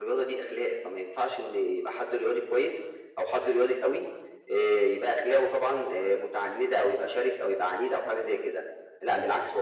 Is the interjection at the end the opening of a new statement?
No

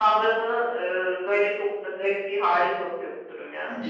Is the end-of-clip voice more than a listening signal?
Yes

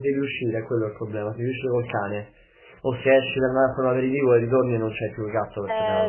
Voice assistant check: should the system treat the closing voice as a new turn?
Yes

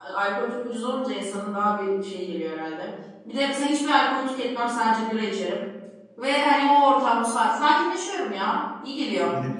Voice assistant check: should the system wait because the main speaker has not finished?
No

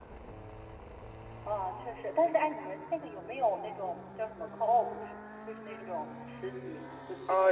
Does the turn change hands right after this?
Yes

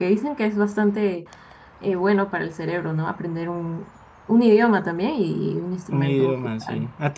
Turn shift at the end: Yes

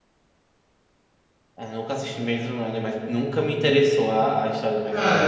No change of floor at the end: No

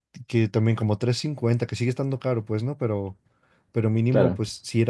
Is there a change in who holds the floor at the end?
No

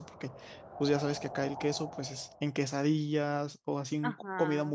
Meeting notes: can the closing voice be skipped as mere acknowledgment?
No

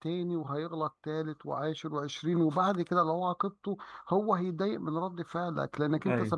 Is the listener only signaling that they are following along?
Yes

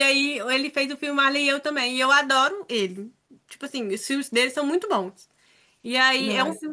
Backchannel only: Yes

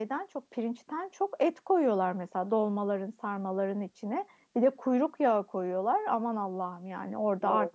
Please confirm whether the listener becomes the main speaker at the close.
No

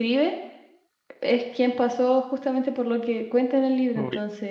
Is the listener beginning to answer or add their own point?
Yes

